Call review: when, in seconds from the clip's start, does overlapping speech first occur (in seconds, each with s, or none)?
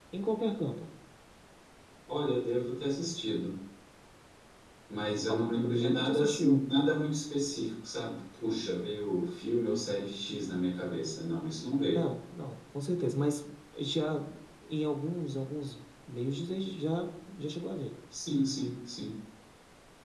5.3 s